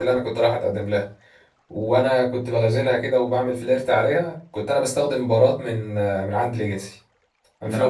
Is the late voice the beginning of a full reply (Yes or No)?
No